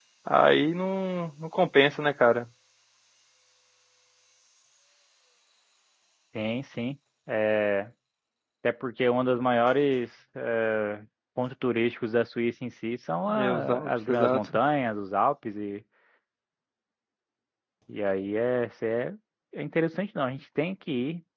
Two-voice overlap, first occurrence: 13.3 s

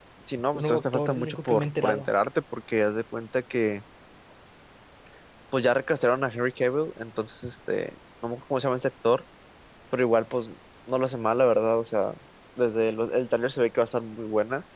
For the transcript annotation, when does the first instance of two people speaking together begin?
0.5 s

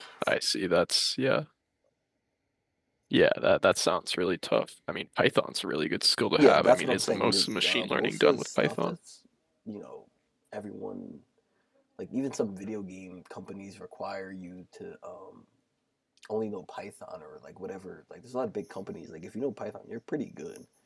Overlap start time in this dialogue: 6.4 s

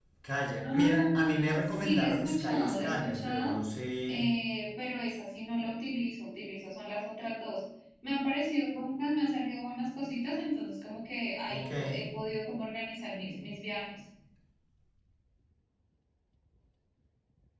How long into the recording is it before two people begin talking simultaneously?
0.6 s

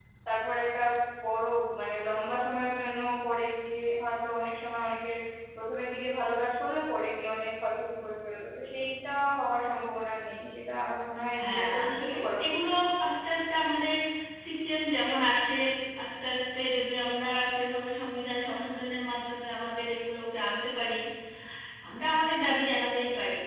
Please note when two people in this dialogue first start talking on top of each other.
11.3 s

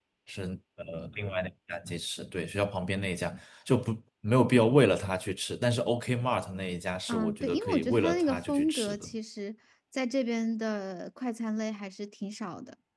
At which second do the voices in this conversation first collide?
7.1 s

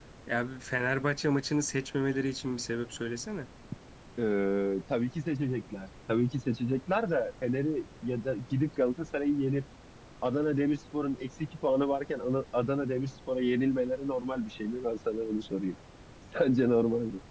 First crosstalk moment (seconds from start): none

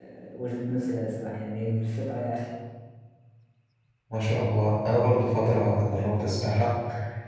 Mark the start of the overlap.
none

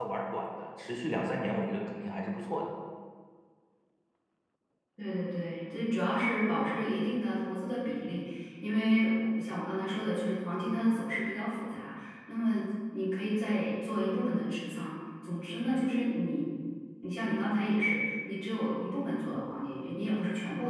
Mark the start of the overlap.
none

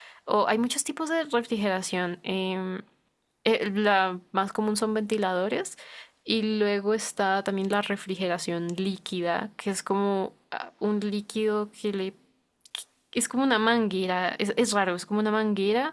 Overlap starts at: none

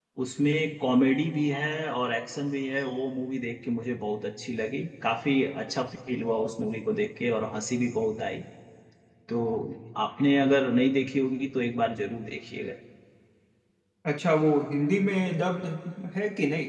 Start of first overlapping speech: none

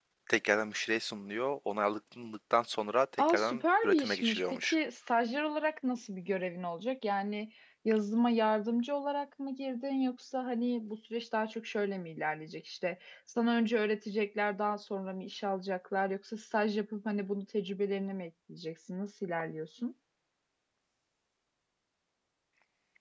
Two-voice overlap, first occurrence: 3.2 s

